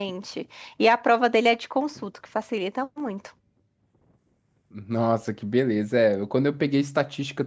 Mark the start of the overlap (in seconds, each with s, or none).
none